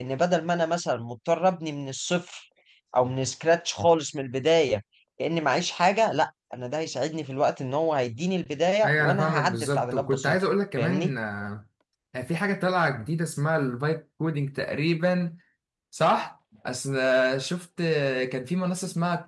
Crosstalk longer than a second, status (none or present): present